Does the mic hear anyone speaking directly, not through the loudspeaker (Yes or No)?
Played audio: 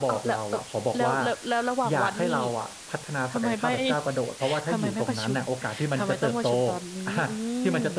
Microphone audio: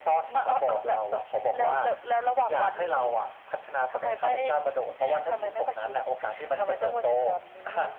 No